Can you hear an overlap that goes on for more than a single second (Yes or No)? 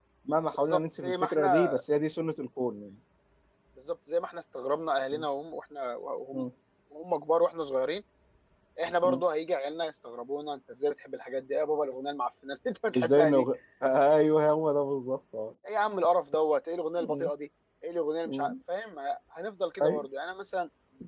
Yes